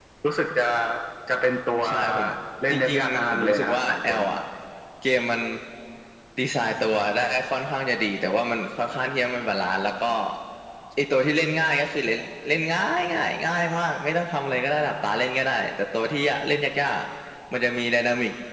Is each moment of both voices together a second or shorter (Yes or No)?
No